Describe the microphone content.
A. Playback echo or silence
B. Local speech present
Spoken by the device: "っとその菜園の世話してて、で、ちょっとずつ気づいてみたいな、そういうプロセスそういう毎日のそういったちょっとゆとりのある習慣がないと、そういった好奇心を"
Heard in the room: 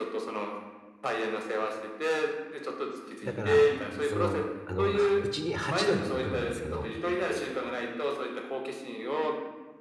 B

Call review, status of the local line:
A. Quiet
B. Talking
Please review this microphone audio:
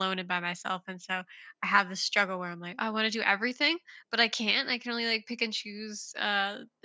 B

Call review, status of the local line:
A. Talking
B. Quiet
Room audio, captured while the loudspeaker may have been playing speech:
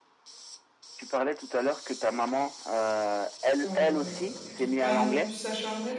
A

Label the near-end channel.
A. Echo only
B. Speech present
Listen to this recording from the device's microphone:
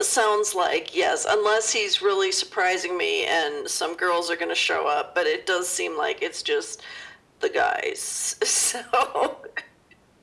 A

